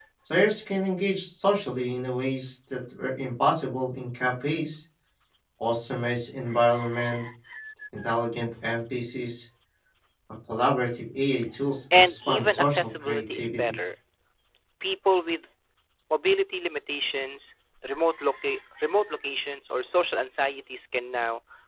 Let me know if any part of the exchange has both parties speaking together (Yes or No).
Yes